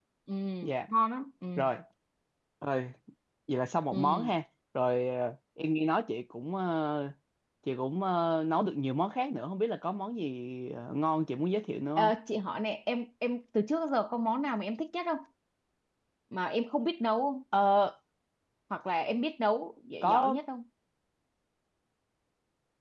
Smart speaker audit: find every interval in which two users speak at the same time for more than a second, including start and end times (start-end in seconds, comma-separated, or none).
none